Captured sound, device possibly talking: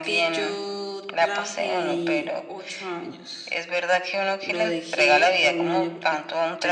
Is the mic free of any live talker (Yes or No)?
No